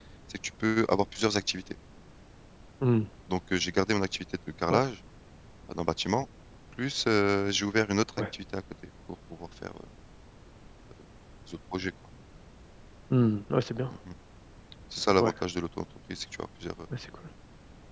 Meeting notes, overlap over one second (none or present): none